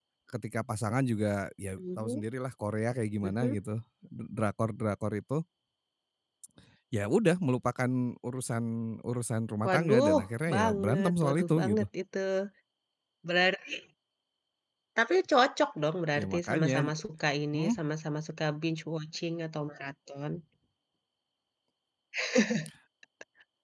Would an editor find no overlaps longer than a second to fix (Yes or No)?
No